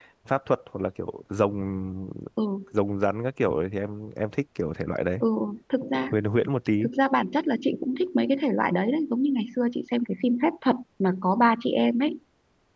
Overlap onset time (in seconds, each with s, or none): none